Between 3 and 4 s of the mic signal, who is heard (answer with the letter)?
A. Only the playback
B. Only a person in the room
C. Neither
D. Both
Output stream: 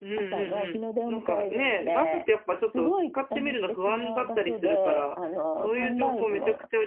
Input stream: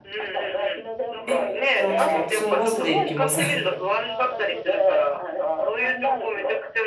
D